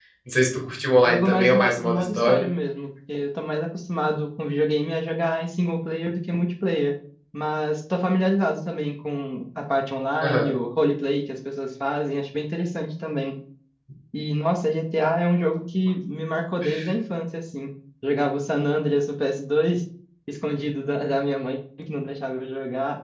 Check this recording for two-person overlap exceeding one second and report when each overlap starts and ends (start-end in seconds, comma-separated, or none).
1.0-2.4